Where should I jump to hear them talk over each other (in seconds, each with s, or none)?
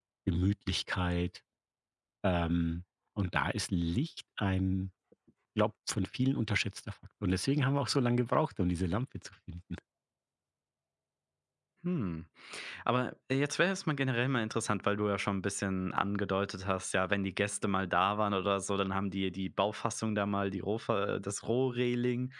none